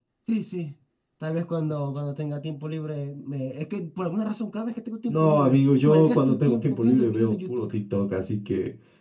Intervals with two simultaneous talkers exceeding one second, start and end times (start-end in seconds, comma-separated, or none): 5.1-7.7